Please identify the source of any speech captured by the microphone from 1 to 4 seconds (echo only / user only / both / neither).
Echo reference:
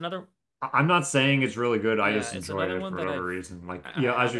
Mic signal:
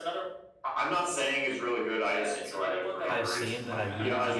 both